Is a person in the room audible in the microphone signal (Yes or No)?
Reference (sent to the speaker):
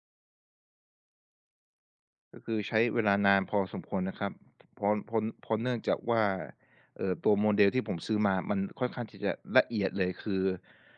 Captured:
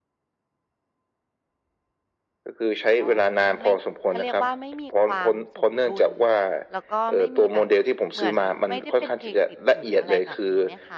Yes